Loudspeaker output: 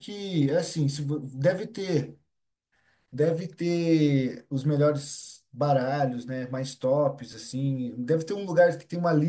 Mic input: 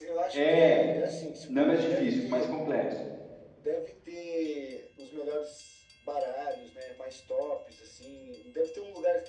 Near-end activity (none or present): present